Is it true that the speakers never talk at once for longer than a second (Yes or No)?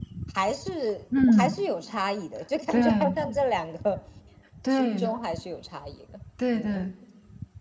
Yes